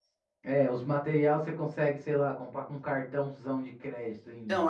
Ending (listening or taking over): taking over